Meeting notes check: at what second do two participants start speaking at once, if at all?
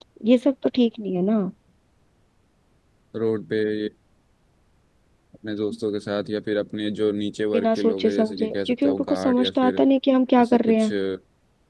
7.5 s

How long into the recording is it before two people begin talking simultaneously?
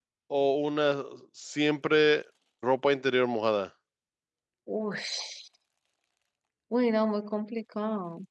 none

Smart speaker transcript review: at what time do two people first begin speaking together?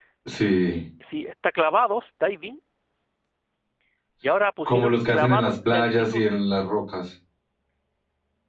4.7 s

